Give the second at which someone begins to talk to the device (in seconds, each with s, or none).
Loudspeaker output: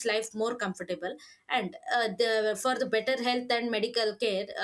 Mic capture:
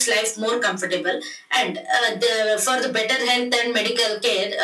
none